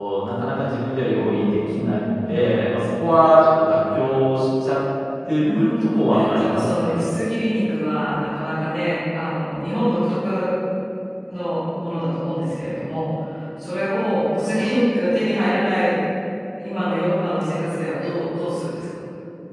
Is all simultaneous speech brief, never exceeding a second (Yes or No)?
No